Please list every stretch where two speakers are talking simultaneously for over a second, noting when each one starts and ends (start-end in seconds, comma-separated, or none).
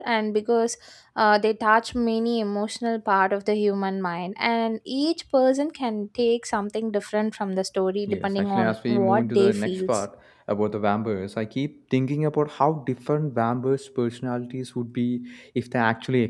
8.1-10.0